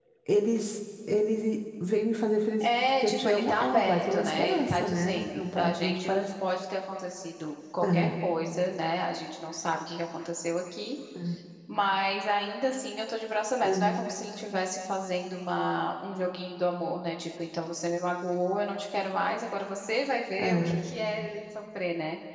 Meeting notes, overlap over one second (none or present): present